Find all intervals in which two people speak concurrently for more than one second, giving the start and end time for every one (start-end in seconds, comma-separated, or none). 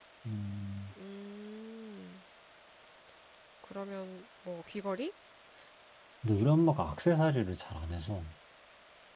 none